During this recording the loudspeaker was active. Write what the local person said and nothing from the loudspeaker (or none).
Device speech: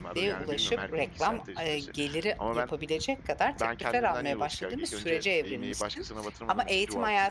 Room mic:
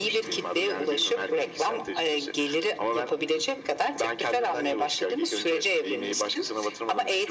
none